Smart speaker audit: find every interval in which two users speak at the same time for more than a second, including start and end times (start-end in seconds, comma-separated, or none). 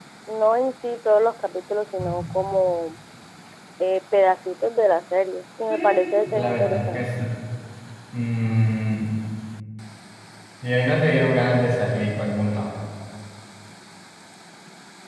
5.7-7.1